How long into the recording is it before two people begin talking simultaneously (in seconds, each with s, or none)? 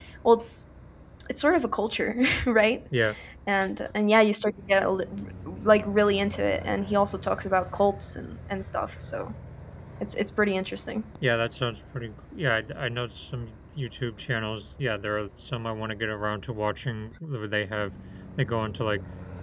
none